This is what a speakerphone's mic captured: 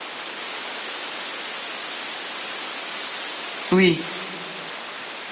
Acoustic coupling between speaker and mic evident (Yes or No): No